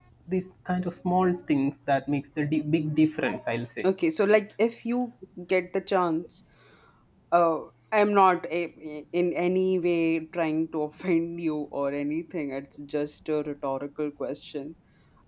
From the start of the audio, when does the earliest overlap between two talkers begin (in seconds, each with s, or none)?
none